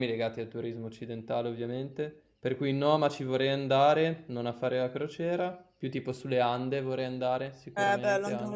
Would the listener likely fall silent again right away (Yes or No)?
No